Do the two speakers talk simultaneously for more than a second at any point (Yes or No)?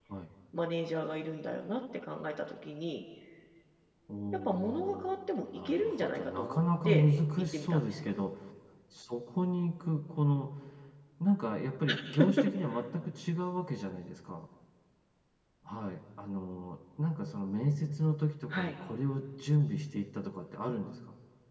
Yes